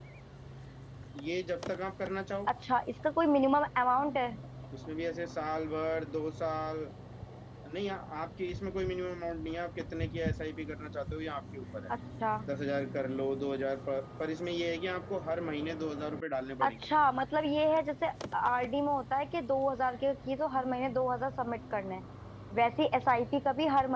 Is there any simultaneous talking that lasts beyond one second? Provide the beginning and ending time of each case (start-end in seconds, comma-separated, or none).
none